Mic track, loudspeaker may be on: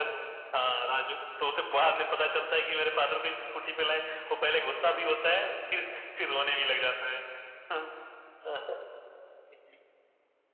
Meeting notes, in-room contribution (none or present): none